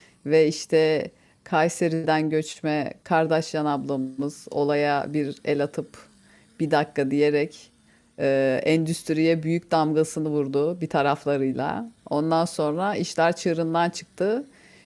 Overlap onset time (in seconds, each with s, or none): none